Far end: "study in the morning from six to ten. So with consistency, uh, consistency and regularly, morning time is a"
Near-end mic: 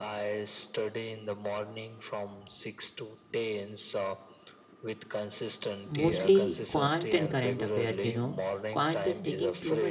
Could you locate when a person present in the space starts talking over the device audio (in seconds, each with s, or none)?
5.8 s